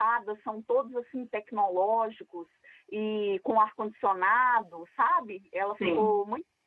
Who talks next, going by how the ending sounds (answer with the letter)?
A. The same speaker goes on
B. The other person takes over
A